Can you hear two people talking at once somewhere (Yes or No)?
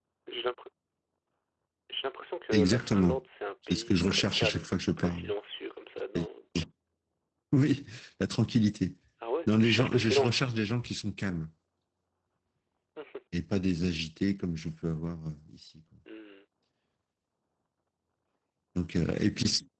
Yes